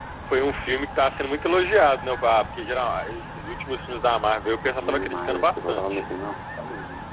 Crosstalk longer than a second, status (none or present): present